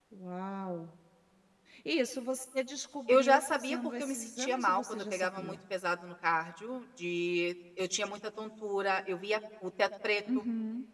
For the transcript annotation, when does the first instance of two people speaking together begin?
3 s

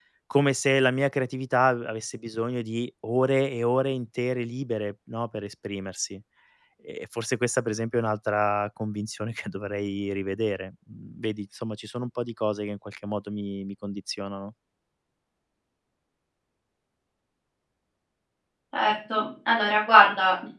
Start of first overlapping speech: none

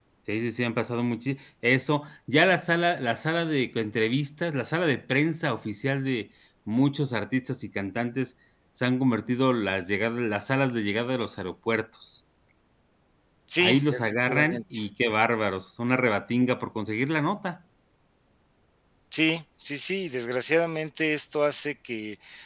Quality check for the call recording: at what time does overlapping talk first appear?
14 s

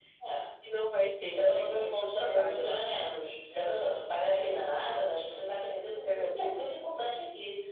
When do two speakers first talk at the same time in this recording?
1 s

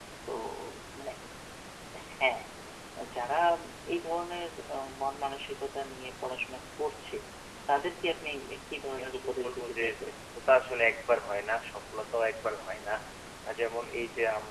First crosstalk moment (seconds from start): 9 s

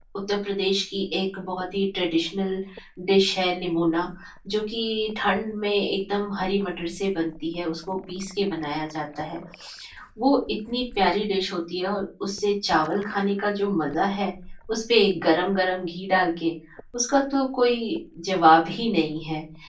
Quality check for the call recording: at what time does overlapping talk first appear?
none

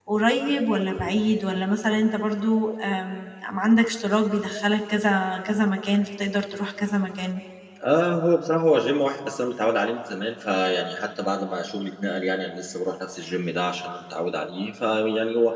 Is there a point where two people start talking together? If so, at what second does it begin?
none

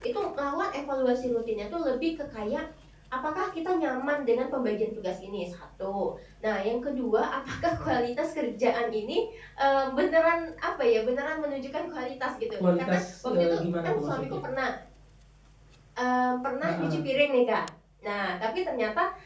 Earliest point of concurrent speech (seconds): 13 s

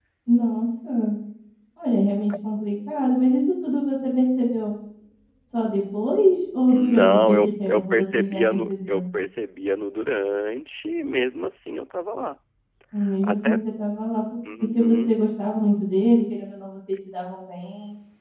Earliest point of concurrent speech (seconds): 7 s

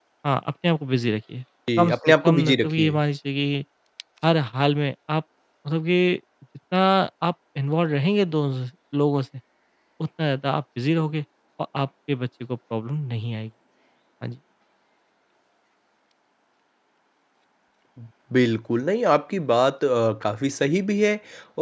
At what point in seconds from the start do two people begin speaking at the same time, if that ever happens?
2 s

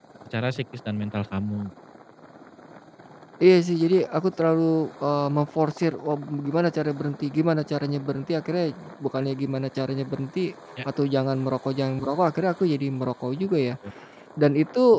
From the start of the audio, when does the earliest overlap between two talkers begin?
none

